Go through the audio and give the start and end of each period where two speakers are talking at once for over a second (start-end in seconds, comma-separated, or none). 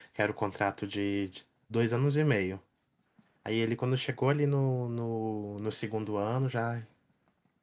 none